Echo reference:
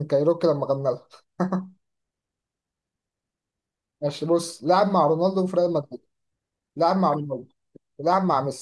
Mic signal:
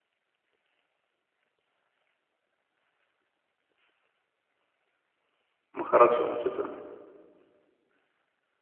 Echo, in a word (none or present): none